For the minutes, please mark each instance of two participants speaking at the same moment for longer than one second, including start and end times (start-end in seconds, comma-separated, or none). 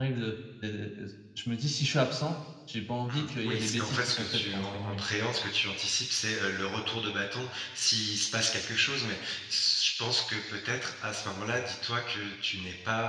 3.2-5.0